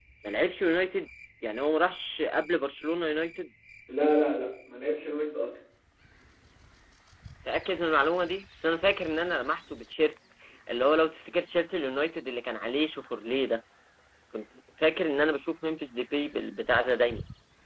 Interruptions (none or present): none